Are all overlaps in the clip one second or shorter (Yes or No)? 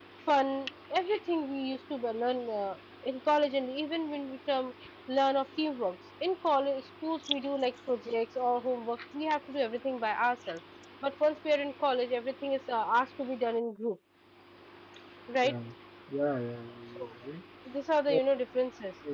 Yes